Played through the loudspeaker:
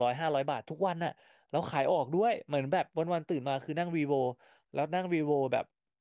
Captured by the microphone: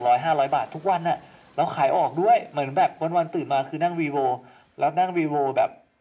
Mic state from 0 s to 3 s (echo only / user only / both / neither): echo only